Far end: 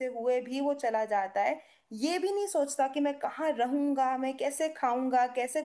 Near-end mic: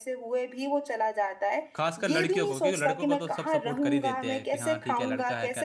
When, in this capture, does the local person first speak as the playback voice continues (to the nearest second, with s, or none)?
2 s